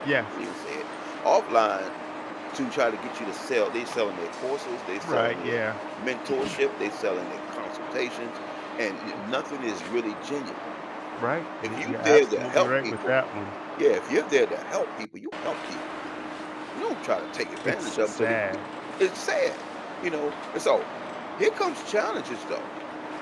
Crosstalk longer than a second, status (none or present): present